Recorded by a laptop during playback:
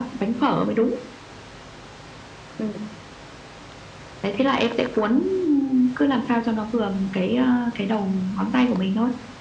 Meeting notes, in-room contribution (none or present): none